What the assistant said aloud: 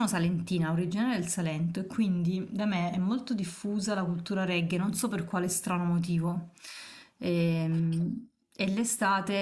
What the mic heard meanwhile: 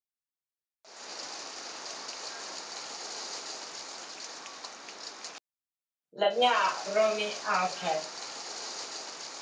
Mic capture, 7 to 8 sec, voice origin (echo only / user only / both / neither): user only